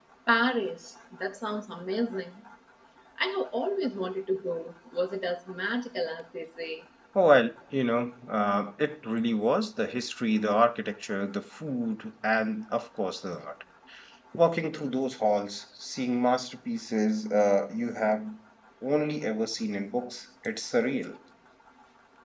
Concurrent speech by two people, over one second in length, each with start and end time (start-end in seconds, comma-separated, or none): none